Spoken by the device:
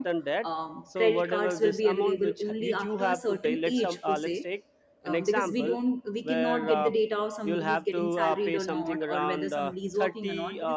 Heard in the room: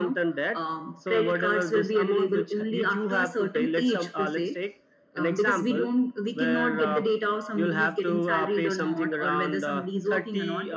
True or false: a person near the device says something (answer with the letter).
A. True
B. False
B